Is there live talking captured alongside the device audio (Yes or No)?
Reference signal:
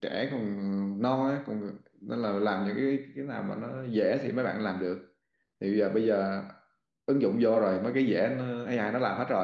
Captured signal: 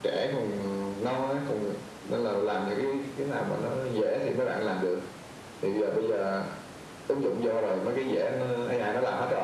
No